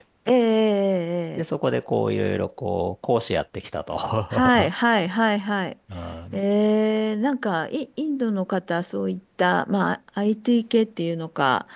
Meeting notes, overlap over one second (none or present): none